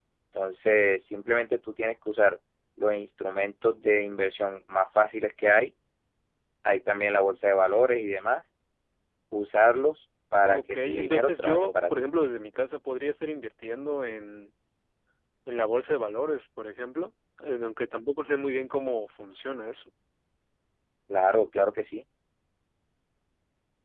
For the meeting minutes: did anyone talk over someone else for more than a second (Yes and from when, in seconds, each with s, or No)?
Yes, from 10.4 s